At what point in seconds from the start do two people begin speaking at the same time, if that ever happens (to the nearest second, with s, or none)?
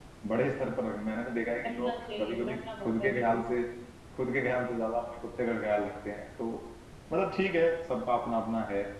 2 s